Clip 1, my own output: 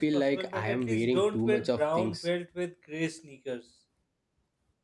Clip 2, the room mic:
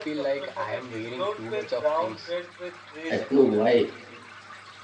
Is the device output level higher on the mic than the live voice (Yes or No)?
No